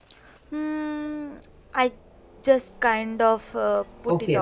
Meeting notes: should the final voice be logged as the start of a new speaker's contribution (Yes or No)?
Yes